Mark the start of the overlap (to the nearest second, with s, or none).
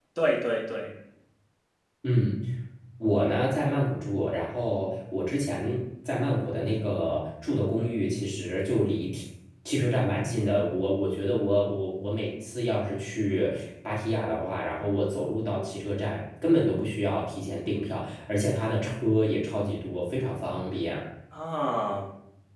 none